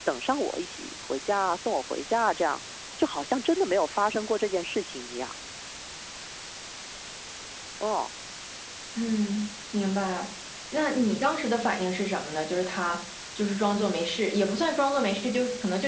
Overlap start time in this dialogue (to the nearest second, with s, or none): none